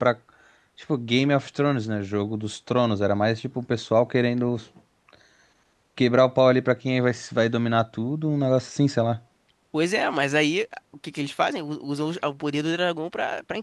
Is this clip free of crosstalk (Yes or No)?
Yes